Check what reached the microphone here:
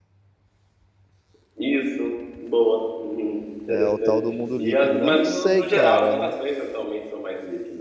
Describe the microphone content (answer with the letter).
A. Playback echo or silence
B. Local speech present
B